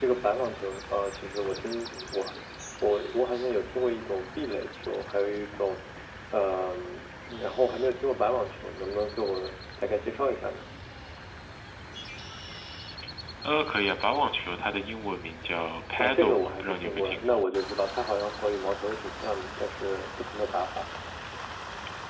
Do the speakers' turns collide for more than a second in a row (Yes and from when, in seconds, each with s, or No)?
Yes, from 15.9 s